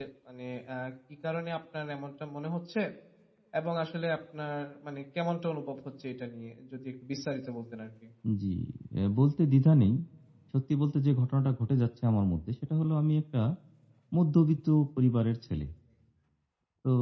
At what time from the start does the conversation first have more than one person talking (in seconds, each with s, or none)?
none